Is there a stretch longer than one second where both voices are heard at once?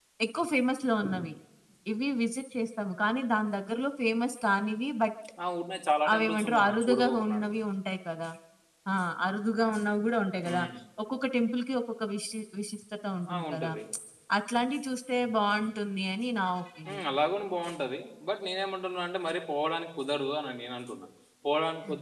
Yes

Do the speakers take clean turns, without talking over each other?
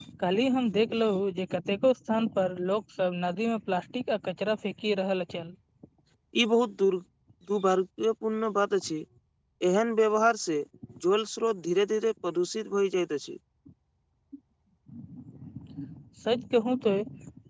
Yes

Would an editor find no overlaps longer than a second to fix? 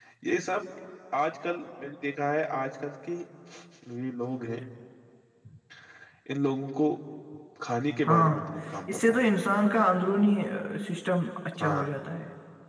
Yes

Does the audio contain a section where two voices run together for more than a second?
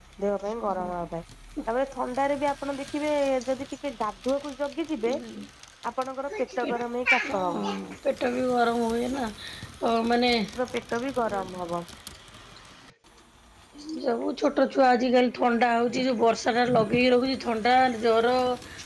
No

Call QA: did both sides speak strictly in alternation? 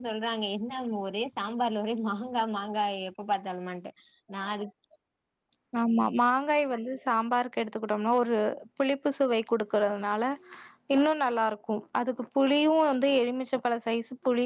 Yes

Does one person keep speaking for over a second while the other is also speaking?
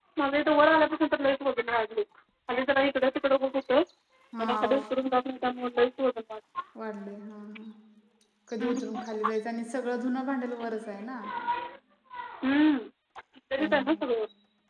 No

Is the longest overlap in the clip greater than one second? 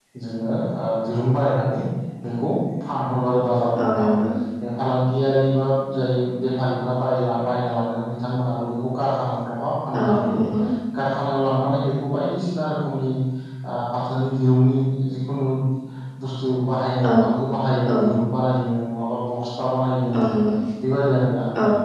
No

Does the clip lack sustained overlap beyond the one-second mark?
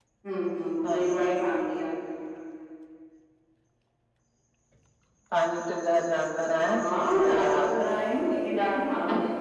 No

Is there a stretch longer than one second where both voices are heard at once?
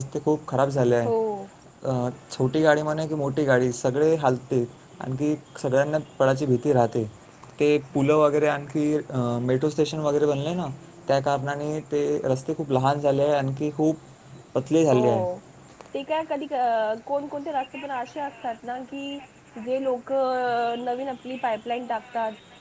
No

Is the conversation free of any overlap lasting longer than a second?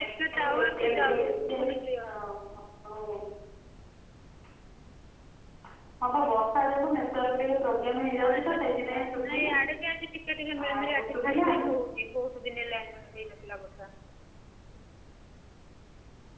No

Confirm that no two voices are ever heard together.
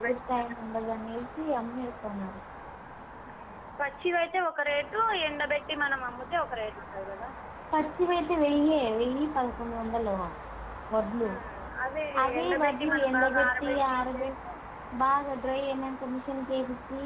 No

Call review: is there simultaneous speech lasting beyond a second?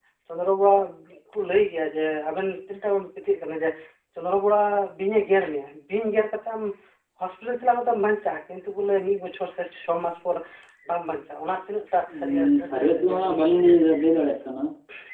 Yes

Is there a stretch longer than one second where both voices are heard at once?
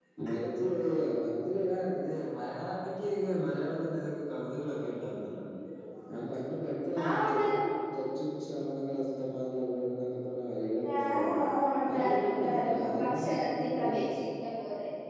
Yes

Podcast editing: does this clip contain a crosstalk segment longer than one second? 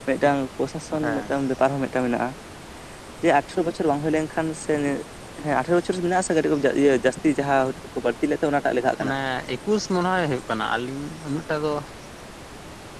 No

